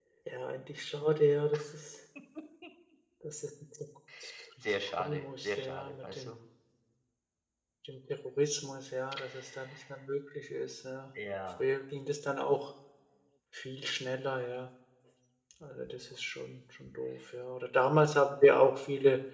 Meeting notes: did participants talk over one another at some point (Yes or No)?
Yes